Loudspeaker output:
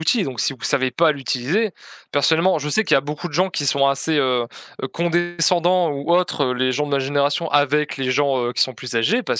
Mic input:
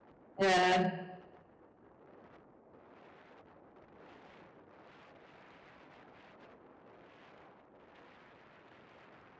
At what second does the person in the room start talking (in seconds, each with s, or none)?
0.4 s